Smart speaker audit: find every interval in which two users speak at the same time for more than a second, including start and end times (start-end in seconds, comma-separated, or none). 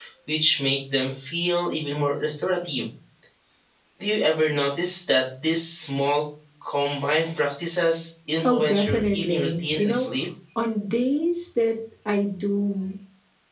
8.4-10.1